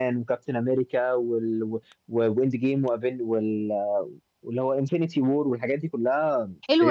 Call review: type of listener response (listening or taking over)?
taking over